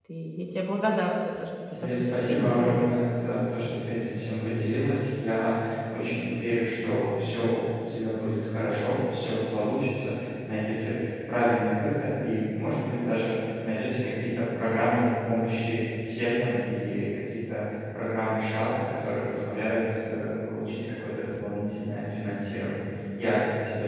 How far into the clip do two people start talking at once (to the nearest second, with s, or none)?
2 s